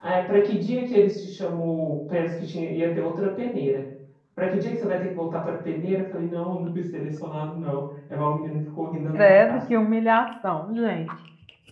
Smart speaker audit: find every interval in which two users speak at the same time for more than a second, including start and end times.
none

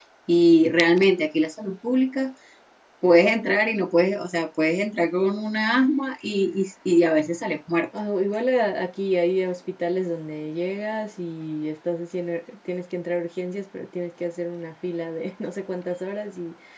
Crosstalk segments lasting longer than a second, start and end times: none

